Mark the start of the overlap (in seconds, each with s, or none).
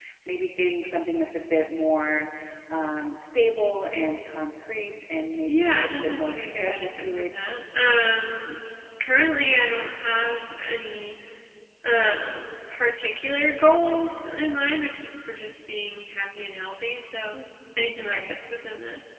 5.5 s